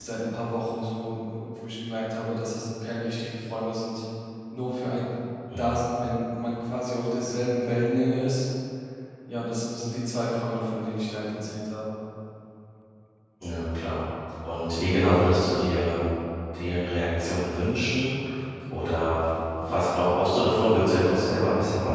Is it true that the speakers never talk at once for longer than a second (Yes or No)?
Yes